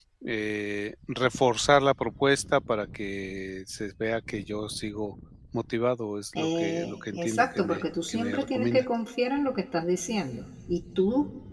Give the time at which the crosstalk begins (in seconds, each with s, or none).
6.3 s